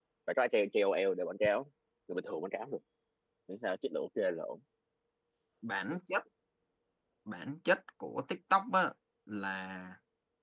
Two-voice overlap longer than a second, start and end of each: none

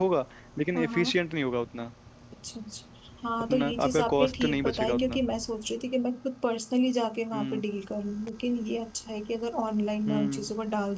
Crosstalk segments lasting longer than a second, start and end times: 3.4-5.2

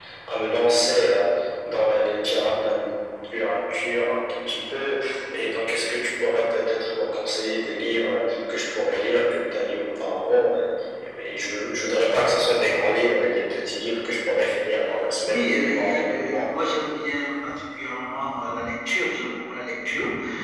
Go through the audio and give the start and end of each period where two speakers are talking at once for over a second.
15.2-16.5

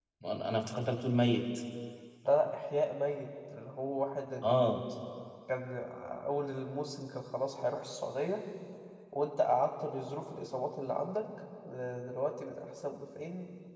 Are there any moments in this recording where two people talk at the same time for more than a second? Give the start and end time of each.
none

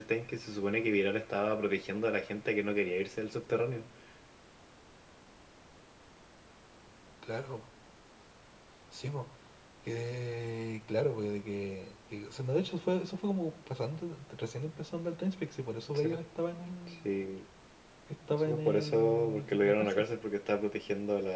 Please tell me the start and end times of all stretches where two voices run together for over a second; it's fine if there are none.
18.4-20.1

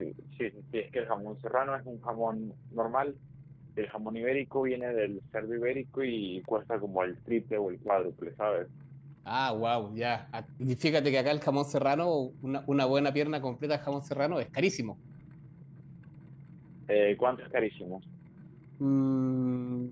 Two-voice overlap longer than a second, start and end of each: none

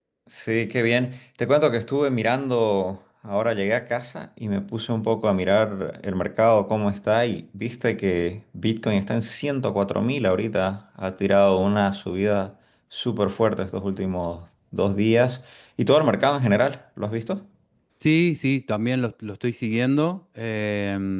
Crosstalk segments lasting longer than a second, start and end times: none

